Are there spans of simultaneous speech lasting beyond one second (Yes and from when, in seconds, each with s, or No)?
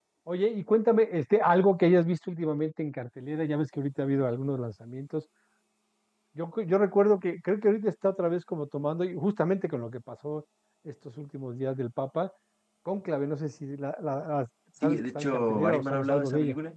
Yes, from 14.8 s